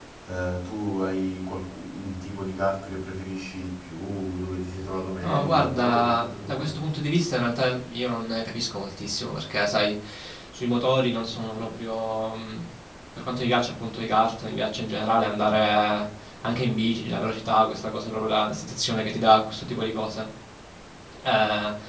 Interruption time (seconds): 5.2 s

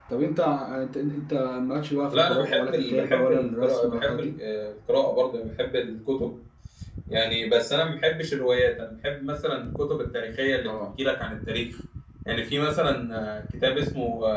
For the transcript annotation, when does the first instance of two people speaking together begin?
2.1 s

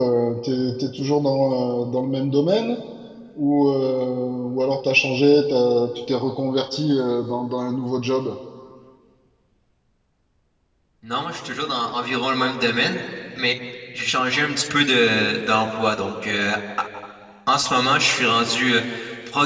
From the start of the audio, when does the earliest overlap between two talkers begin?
none

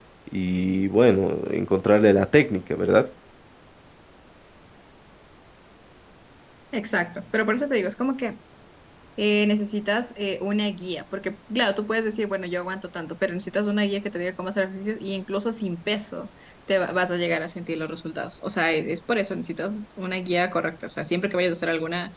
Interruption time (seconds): none

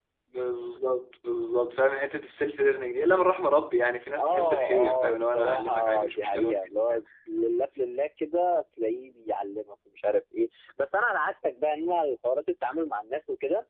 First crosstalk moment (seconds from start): 4.2 s

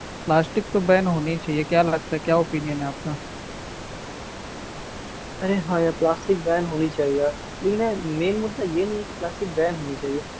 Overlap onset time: none

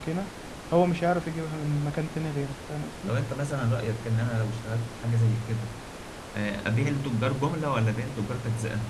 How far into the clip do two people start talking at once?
none

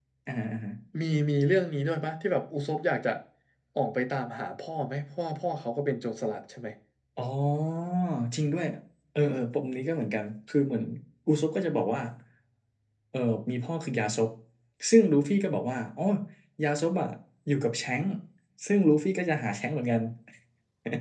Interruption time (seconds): none

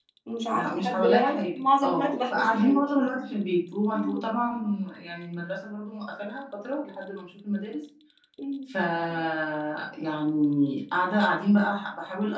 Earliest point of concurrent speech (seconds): 0.5 s

